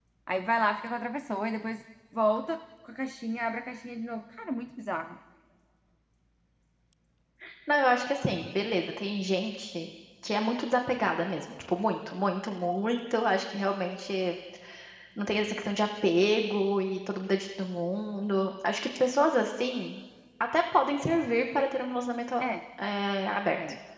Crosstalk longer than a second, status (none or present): none